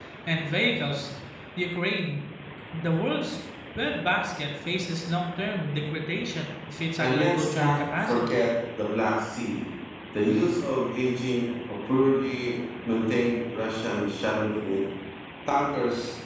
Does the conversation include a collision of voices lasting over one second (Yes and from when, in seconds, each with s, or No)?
Yes, from 7.0 s